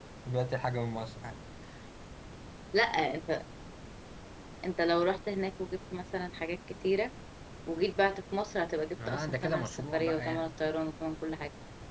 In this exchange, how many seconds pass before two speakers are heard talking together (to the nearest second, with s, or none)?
9 s